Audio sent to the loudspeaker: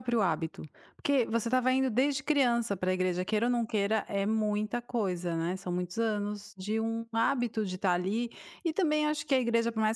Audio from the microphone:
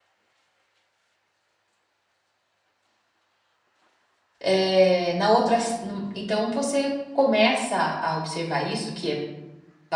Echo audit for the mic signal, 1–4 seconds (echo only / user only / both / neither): neither